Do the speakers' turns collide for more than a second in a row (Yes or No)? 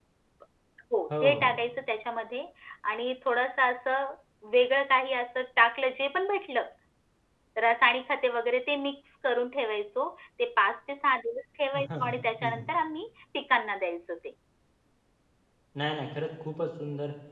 No